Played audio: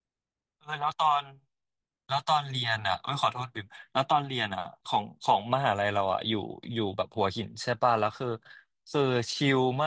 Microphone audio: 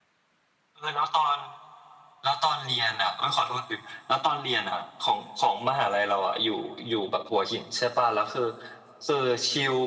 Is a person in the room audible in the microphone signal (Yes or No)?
No